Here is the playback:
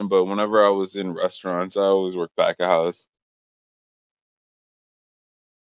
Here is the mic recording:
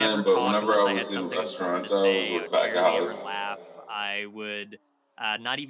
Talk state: both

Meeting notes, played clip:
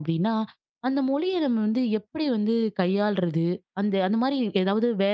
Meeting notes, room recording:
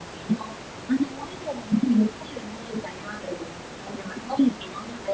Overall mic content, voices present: echo only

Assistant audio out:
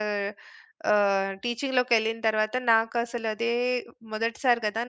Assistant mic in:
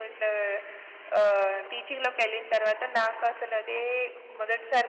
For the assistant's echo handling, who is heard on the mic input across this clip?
echo only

